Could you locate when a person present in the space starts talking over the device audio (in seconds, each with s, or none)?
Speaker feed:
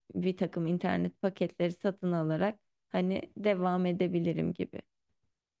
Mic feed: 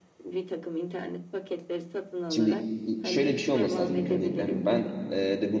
2.3 s